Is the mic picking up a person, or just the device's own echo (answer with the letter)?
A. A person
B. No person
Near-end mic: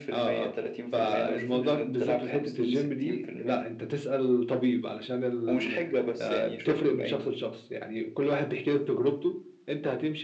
B